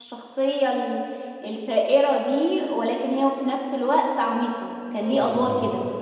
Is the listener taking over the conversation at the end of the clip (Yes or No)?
Yes